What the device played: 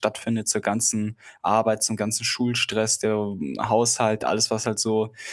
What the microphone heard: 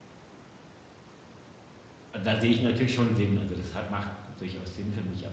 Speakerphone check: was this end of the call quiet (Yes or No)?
No